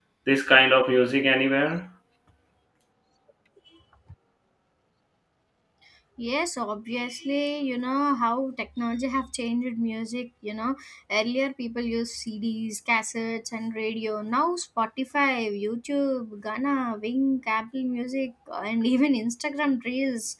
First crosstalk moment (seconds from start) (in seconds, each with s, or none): none